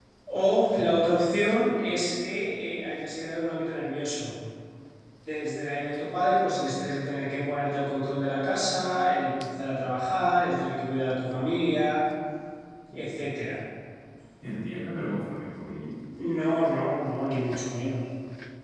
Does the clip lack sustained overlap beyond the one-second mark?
Yes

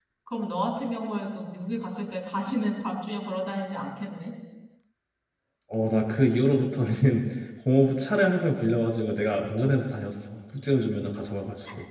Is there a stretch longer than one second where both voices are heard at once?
No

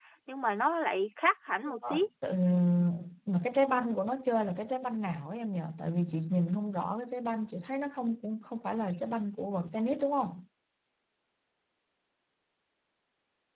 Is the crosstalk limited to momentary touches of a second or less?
Yes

